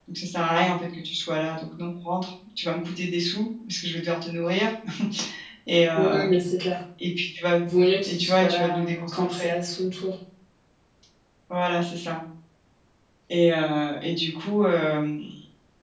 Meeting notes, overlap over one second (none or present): present